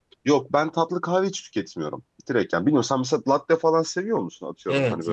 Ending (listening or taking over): taking over